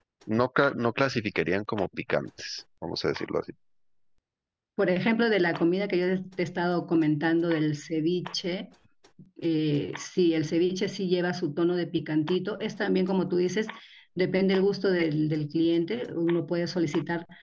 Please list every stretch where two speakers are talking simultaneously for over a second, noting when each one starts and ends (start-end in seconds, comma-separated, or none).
none